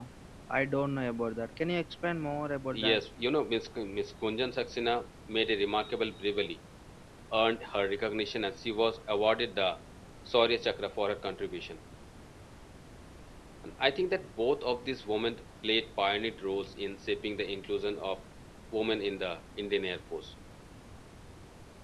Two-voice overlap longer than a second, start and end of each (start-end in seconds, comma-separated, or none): none